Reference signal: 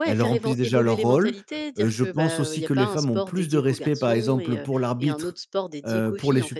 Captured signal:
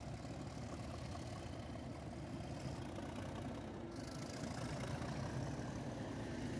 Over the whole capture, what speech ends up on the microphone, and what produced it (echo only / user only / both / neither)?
neither